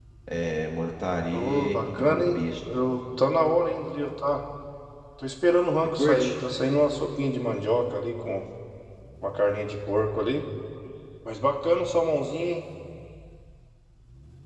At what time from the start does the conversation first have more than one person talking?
1 s

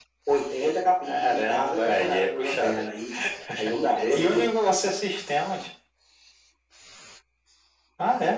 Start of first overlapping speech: 1 s

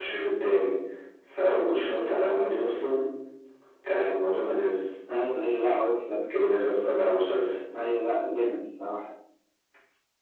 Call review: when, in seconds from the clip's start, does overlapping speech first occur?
none

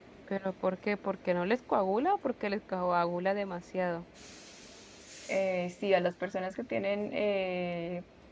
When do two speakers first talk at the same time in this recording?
none

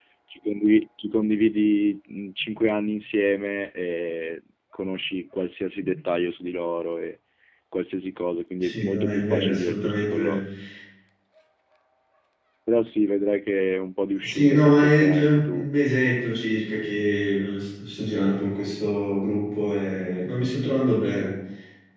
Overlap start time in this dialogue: 9 s

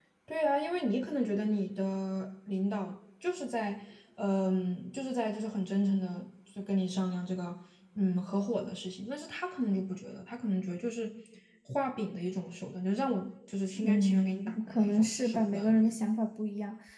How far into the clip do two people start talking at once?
14 s

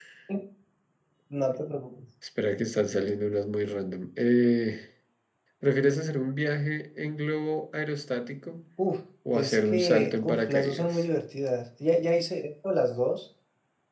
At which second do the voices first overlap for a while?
9 s

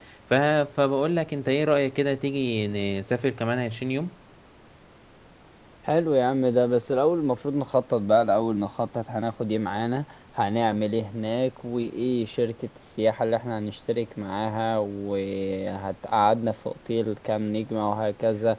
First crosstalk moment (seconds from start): none

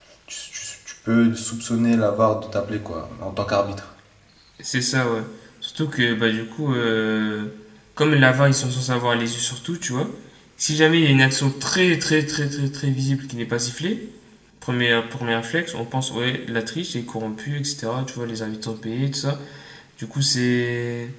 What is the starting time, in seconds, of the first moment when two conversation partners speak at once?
none

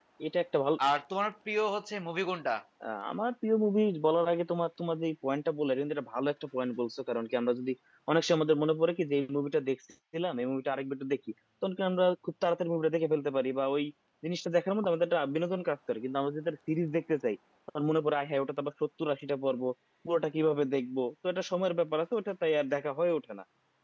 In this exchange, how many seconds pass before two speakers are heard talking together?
none

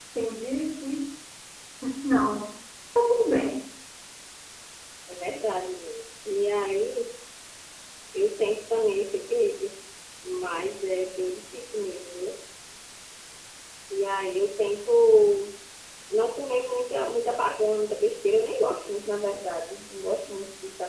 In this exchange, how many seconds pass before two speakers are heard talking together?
none

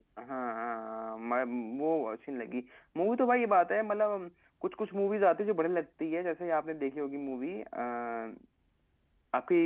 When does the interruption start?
none

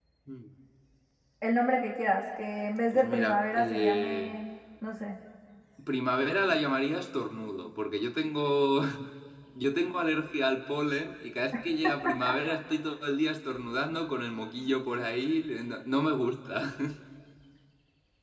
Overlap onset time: 3 s

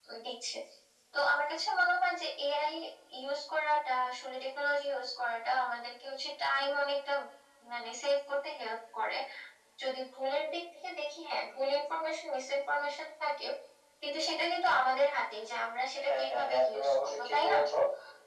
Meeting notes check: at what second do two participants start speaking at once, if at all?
16 s

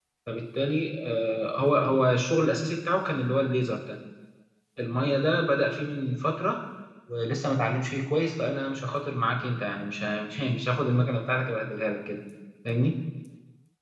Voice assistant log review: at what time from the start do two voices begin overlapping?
none

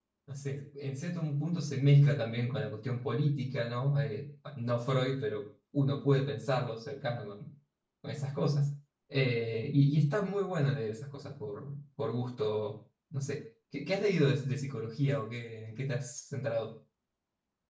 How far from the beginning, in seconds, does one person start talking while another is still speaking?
none

